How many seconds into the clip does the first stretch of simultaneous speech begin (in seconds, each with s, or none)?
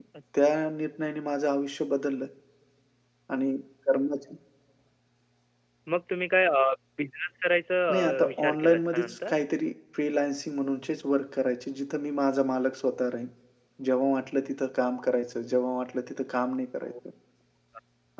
7.9 s